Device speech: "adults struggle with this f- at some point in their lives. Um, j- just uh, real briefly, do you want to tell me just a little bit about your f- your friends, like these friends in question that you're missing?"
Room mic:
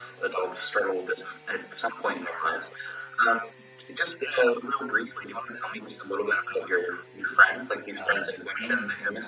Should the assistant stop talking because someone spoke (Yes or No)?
Yes